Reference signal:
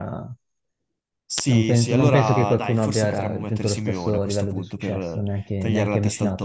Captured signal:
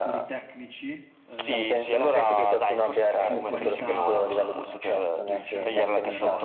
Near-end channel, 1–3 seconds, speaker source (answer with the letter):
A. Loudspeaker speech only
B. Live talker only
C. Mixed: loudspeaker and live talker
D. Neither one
C